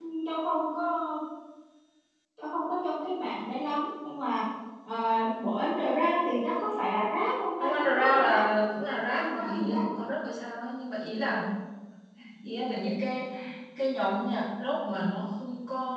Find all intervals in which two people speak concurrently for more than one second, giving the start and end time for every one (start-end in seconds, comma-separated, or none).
7.6-9.8